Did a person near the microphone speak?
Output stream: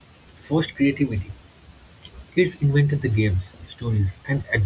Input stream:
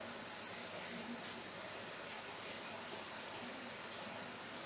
No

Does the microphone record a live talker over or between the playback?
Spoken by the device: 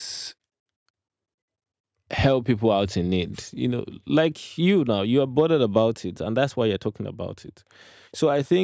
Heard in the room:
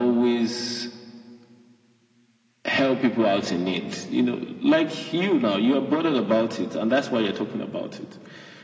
No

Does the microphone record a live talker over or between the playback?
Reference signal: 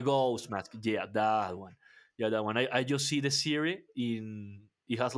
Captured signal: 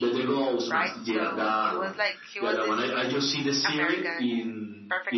Yes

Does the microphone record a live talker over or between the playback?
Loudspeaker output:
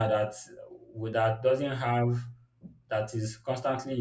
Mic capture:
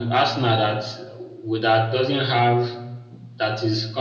No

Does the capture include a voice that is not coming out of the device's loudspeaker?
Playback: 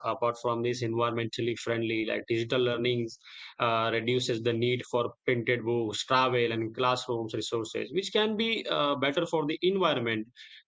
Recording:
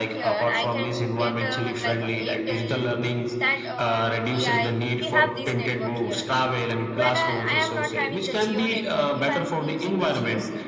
Yes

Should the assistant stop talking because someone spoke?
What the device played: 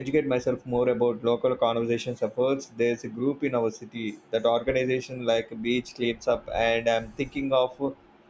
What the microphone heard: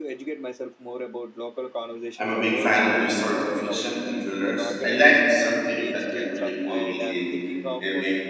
Yes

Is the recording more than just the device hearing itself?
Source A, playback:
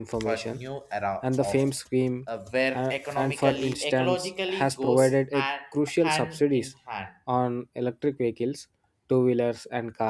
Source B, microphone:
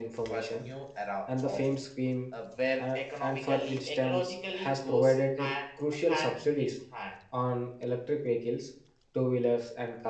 No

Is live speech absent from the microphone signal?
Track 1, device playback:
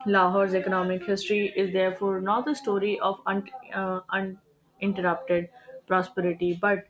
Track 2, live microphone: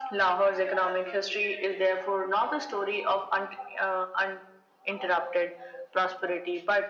Yes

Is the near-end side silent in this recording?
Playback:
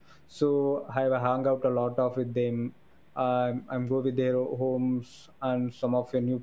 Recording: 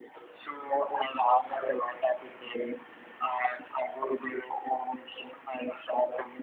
Yes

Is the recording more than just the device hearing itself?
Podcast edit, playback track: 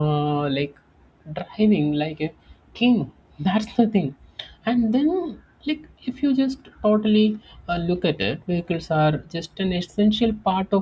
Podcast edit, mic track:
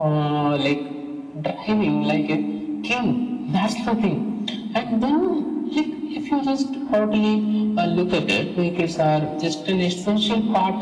No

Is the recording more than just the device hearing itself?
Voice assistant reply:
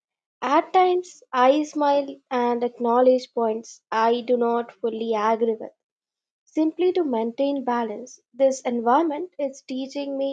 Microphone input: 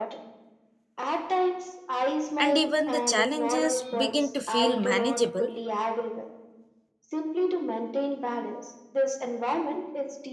Yes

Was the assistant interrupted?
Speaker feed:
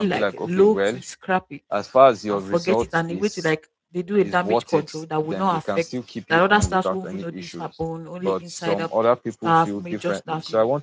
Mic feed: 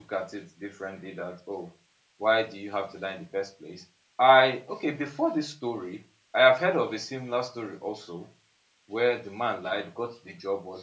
Yes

